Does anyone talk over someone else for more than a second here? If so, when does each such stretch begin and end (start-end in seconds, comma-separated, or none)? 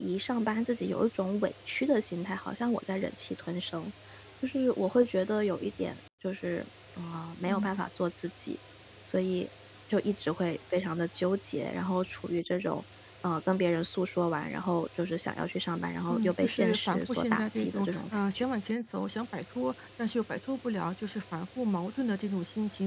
16.1-18.4